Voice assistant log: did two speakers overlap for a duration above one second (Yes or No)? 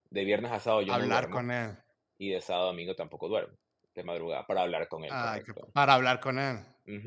No